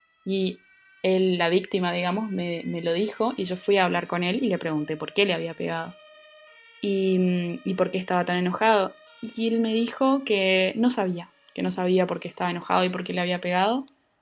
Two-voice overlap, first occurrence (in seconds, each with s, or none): none